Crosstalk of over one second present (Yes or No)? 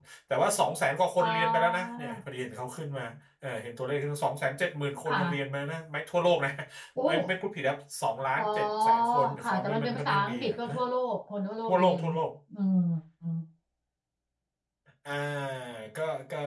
Yes